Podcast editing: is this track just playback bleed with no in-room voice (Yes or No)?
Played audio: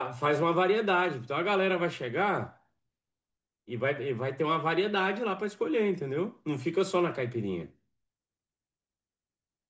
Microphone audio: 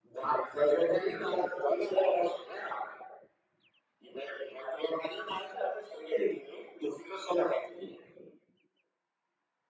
Yes